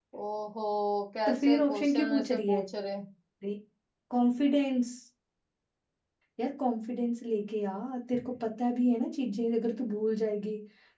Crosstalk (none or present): present